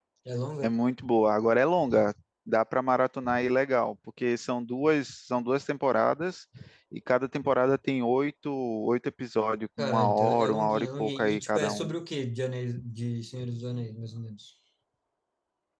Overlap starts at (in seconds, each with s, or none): 9.8 s